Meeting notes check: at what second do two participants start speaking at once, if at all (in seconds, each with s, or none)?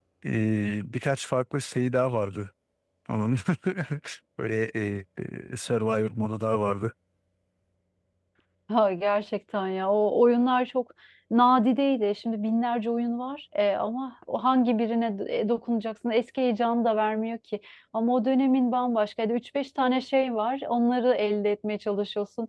none